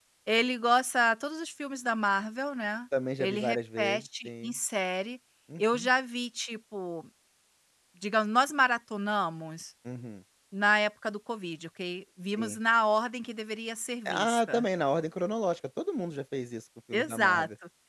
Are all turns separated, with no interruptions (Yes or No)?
No